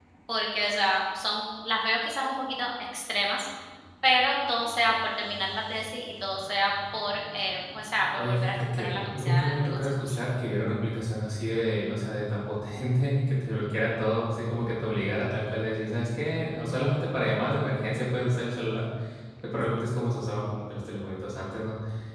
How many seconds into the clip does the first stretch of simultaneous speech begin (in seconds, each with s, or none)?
8.2 s